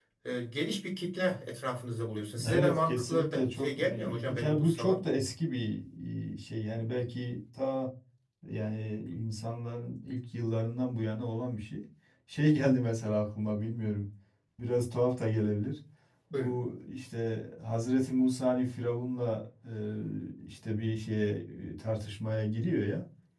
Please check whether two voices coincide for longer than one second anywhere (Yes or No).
Yes